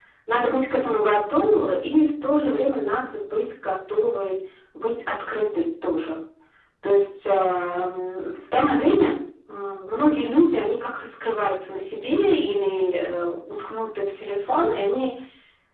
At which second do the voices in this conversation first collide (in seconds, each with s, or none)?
none